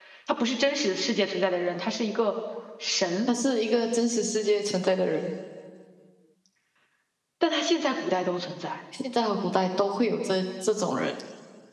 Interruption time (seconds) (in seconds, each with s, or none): none